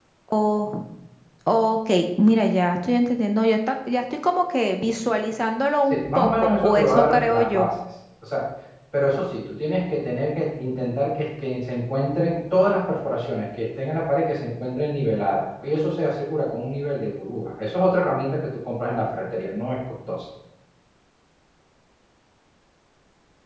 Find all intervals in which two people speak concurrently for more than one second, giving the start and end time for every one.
5.9-7.7

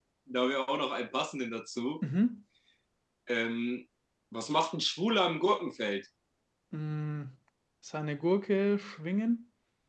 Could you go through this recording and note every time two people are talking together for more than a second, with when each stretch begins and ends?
none

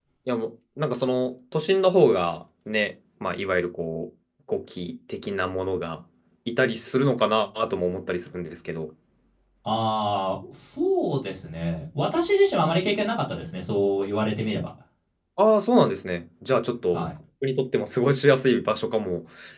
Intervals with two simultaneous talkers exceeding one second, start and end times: none

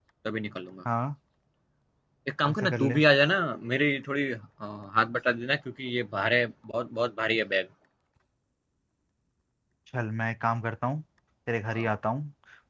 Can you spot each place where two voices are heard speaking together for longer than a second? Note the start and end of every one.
none

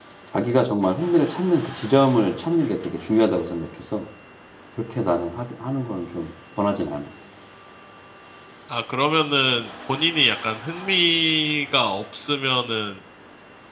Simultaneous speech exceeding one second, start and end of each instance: none

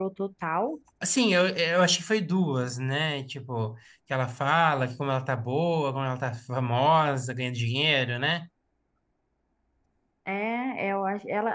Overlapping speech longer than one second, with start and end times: none

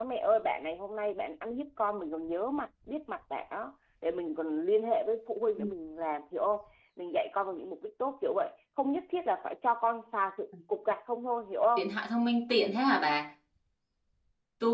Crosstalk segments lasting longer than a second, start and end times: none

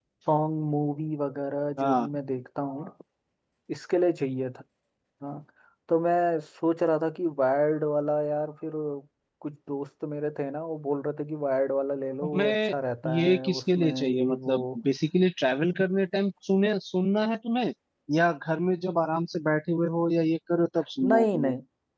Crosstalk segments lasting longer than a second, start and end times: 13.1-14.8

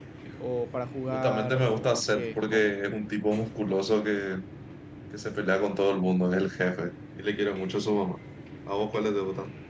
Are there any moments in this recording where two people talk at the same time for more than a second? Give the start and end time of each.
1.1-2.7

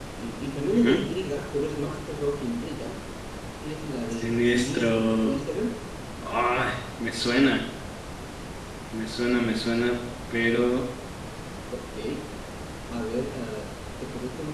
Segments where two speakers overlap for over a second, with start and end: 4.1-5.3

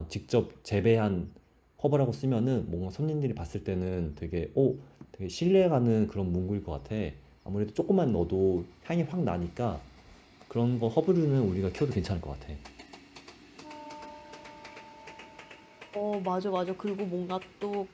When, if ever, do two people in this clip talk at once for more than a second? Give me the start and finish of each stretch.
none

